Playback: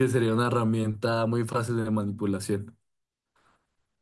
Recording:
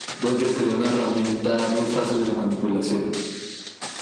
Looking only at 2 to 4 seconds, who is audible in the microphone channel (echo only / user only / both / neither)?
echo only